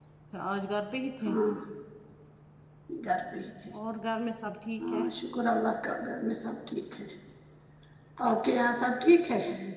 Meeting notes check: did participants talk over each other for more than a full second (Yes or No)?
No